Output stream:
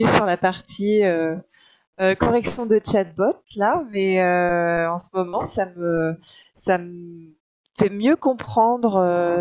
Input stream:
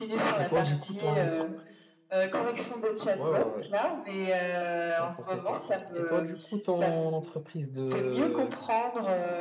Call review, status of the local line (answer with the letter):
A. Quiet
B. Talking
B